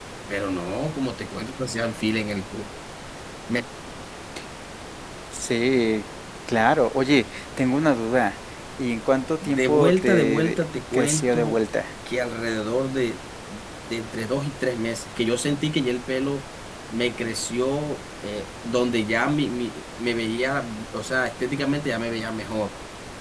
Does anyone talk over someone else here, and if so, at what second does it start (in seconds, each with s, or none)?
9.4 s